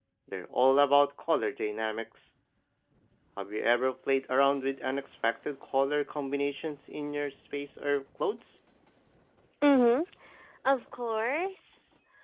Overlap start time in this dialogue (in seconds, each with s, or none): none